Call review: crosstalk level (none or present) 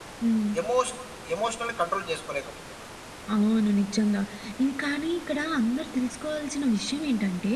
none